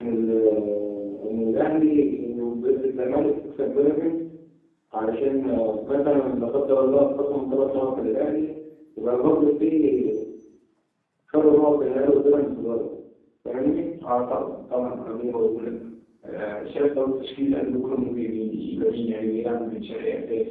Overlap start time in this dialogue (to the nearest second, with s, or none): none